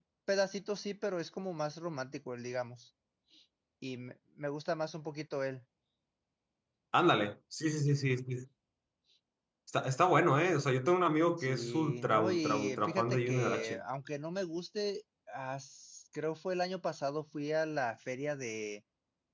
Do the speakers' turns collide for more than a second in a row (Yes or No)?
Yes